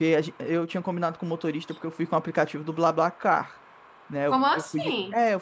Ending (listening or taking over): listening